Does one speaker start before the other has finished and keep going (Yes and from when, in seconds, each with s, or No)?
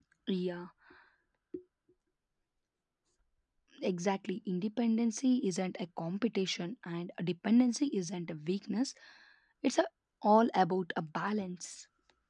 No